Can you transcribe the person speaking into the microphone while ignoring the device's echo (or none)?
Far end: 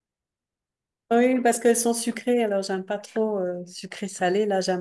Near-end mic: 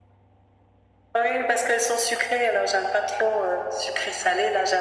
none